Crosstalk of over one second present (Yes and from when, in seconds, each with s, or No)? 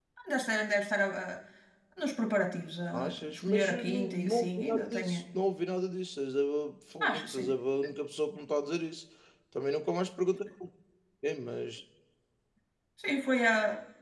Yes, from 2.9 s